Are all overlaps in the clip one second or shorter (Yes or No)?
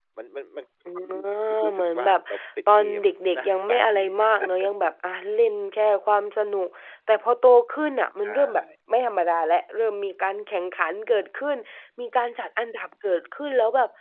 No